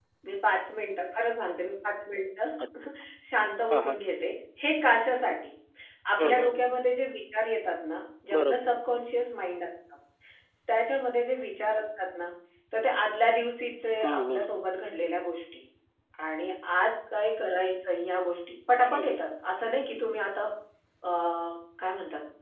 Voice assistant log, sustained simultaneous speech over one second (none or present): none